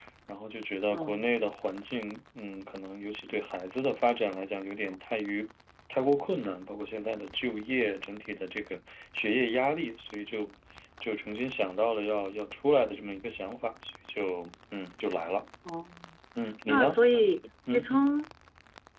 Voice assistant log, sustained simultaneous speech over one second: none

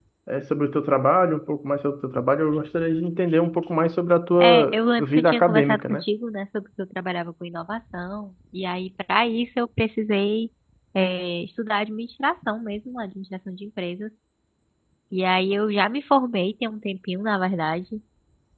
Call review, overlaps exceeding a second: present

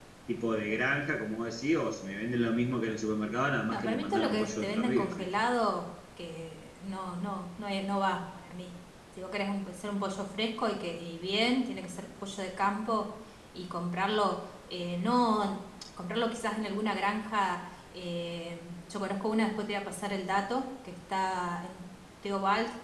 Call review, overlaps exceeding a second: present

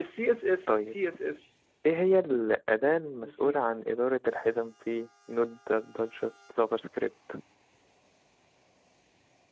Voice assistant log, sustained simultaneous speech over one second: none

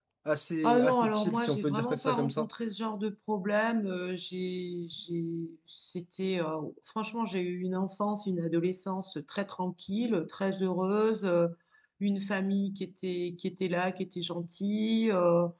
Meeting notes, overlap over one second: present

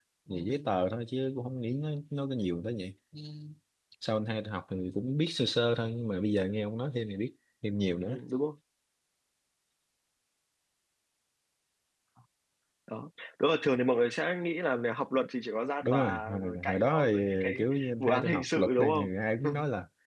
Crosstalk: present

